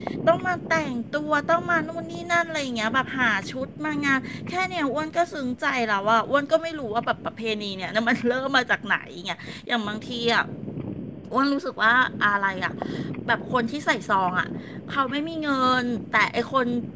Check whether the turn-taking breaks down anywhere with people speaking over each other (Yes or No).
No